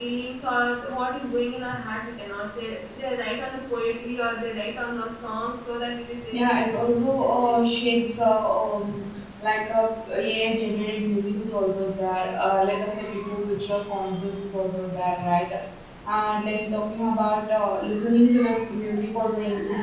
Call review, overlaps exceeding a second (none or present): present